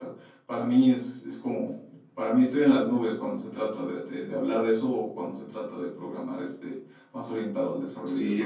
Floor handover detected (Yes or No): Yes